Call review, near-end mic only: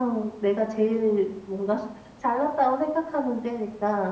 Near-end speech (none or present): none